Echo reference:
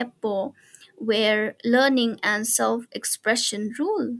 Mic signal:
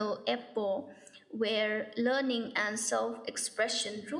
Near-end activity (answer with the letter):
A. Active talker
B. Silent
B